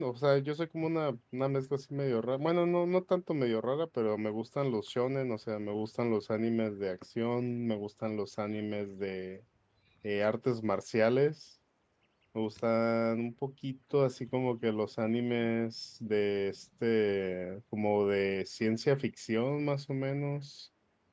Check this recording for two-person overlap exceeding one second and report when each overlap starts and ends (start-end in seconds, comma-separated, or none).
none